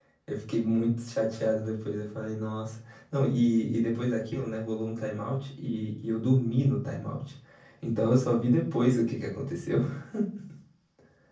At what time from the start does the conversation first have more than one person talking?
none

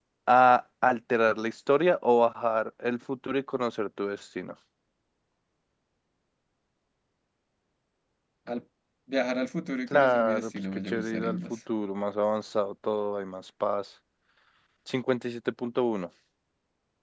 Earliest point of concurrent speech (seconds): 9.9 s

